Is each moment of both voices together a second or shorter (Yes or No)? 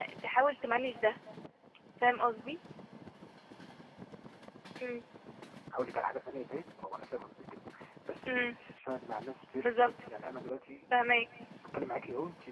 Yes